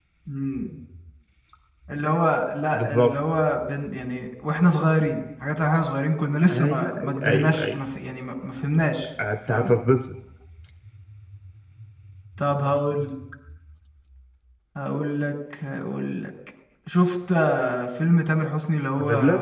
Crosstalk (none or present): present